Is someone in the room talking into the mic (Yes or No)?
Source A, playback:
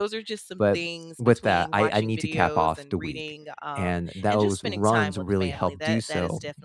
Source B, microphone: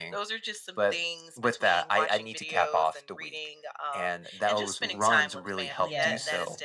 Yes